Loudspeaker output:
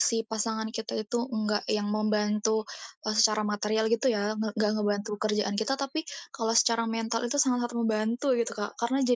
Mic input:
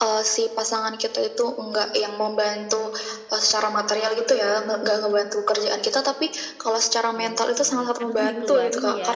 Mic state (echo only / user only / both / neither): both